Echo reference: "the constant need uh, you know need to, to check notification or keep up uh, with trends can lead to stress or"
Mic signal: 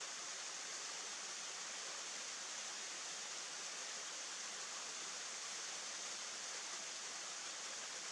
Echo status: none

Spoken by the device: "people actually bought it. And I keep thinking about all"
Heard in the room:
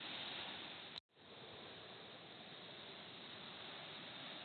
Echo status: none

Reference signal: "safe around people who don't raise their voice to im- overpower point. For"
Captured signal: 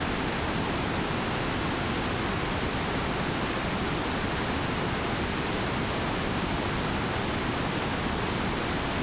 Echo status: none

